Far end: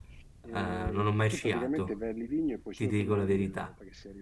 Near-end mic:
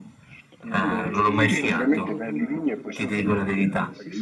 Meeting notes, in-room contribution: present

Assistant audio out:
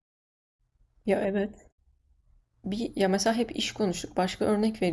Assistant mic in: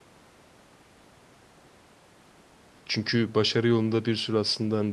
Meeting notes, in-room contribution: present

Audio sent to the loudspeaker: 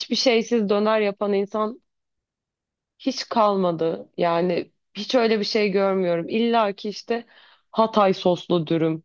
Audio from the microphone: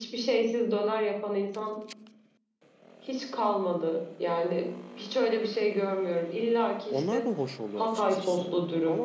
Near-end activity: present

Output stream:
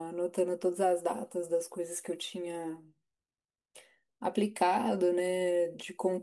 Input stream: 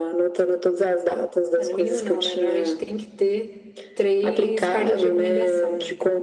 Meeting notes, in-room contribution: present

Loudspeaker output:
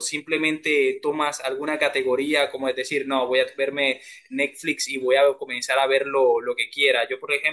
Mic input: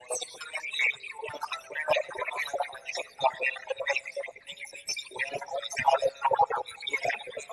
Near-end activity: none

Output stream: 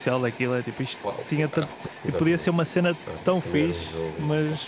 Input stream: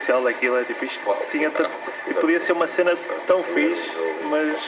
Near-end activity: none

